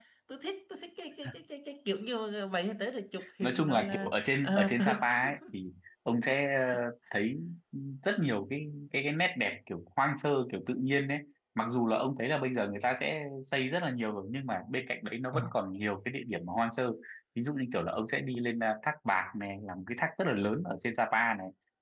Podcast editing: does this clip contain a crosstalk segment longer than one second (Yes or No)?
Yes